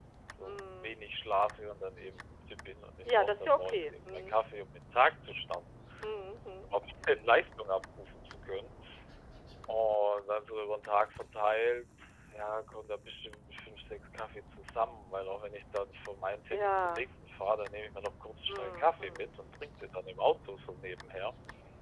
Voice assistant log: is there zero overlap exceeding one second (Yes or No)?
No